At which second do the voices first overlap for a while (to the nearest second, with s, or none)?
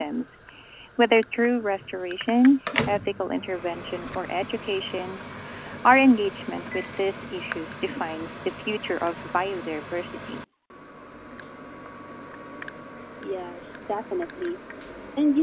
none